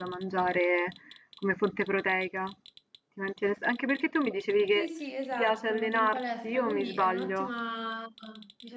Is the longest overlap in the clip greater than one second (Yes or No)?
Yes